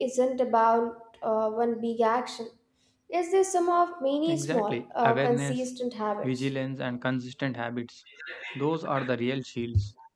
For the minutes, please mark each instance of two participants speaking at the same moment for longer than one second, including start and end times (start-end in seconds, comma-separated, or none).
4.3-5.6